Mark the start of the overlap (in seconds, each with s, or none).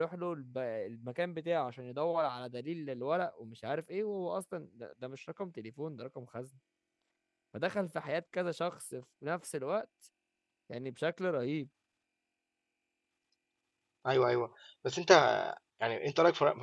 none